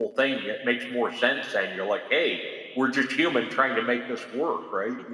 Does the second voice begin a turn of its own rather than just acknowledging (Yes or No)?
Yes